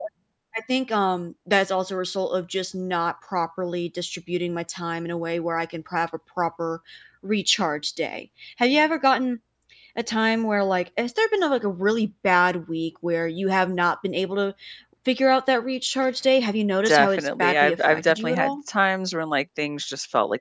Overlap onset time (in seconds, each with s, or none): 16.9 s